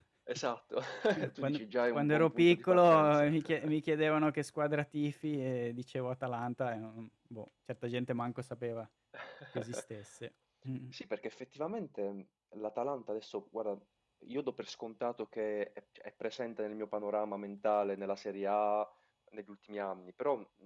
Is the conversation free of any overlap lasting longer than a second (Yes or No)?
No